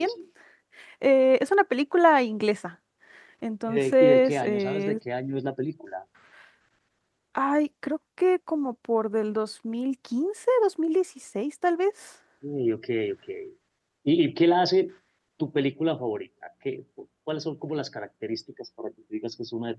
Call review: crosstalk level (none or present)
present